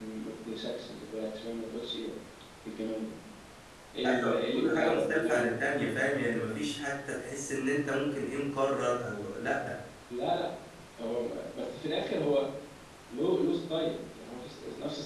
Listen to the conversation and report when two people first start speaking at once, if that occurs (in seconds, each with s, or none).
4.0 s